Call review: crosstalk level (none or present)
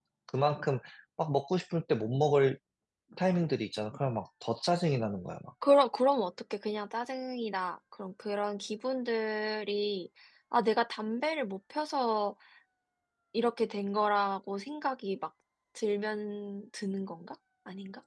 none